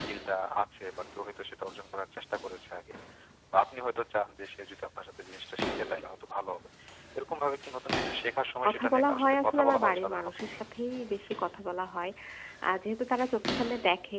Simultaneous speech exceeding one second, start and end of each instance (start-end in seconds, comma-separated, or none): 8.7-10.4